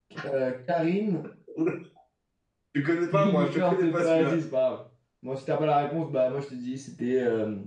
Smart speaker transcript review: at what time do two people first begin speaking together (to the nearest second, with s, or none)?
3 s